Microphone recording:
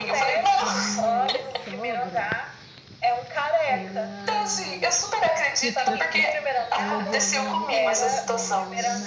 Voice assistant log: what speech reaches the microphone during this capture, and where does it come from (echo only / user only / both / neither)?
both